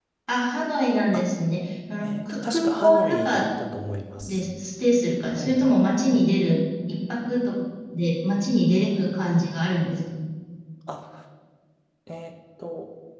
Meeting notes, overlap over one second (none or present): present